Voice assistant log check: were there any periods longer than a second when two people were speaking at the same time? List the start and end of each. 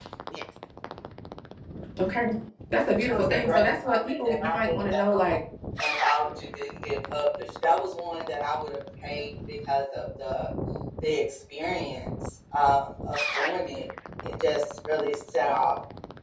3.1-5.2

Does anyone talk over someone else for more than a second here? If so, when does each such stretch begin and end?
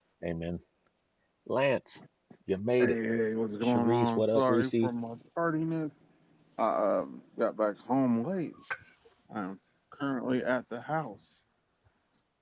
3.6-4.9

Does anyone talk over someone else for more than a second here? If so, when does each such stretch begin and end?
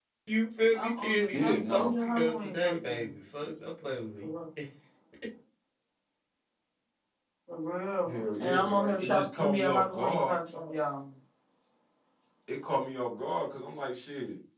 0.7-3.5, 8.1-10.3

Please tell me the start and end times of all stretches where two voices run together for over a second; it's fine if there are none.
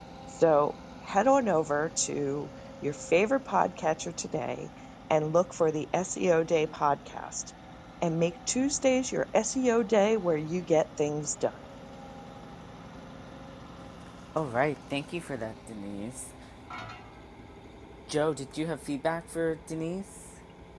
none

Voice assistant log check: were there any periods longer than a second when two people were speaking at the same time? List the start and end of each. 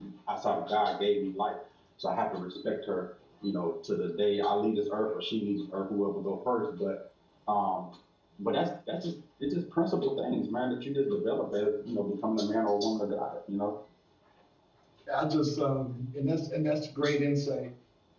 none

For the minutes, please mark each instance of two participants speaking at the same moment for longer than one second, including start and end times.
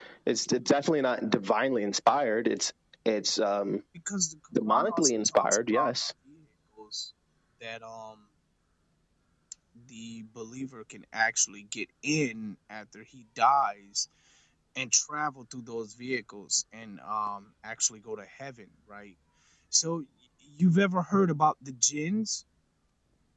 4.7-5.9

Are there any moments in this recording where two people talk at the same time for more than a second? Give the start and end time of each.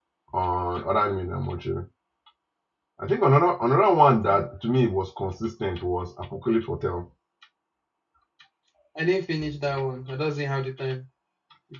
none

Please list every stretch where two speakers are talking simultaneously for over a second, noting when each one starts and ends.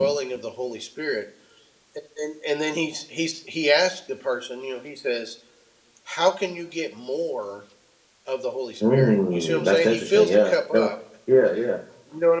8.9-10.9

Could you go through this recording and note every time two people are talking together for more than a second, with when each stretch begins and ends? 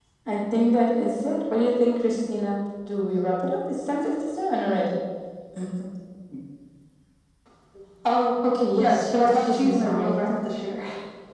8.7-10.2

